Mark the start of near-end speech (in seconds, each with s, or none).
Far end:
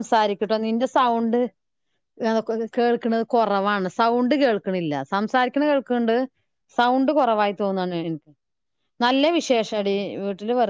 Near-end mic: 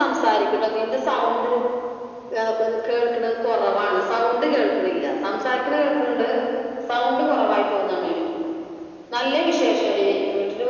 none